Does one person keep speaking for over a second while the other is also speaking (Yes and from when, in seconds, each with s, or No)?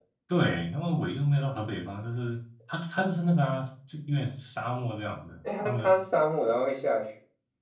No